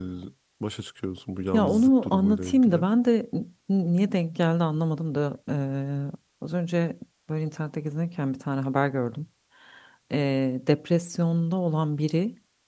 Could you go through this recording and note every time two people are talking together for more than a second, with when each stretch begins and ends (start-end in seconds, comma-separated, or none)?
1.5-2.9